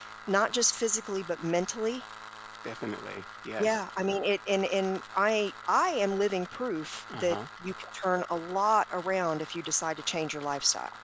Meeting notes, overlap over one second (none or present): none